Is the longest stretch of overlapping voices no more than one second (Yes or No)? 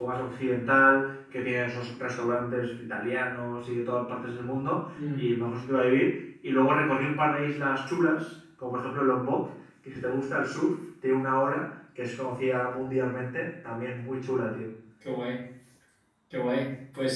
Yes